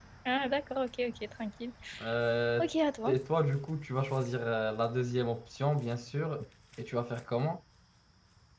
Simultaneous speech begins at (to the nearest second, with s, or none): none